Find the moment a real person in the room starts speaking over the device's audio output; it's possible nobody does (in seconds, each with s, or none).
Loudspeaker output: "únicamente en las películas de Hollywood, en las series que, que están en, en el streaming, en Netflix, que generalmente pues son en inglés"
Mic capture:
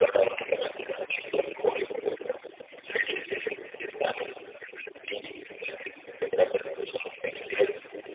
none